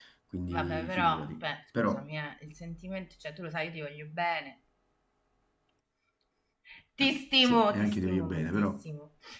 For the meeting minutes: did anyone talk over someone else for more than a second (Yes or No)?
Yes